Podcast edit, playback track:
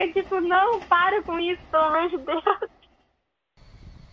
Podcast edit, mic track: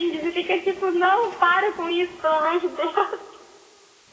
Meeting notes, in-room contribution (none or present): none